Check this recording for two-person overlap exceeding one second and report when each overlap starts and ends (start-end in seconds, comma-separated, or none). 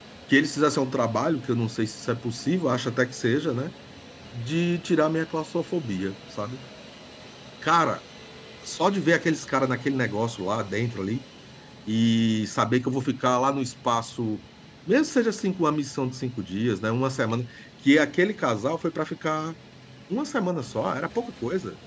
none